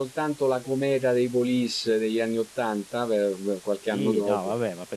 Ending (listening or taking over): taking over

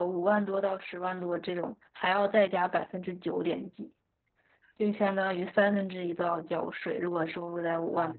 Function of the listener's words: taking over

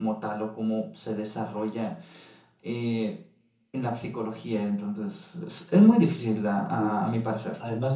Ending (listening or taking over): taking over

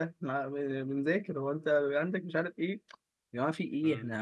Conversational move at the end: listening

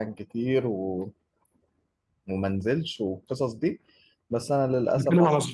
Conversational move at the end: taking over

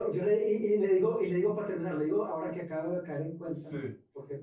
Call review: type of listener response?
listening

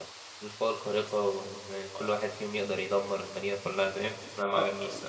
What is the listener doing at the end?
taking over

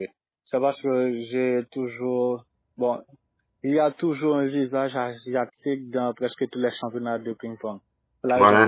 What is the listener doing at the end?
taking over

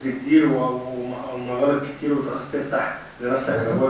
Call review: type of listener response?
taking over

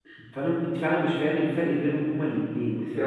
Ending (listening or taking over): taking over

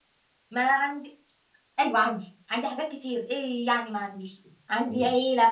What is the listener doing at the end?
listening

